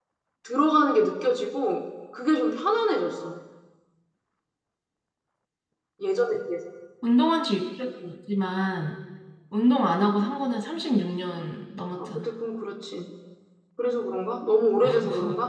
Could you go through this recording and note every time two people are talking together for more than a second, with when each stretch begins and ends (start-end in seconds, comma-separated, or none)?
none